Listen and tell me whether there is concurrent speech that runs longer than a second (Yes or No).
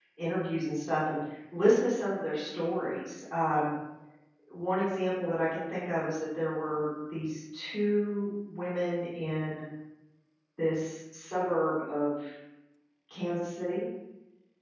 No